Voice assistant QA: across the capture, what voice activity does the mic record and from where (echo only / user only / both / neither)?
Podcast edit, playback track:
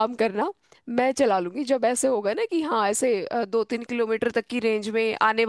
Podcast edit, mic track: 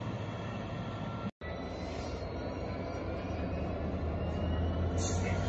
neither